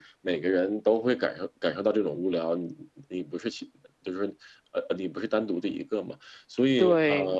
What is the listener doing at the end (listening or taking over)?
taking over